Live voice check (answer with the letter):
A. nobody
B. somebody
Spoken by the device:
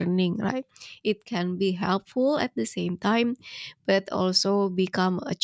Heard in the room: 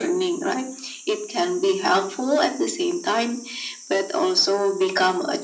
A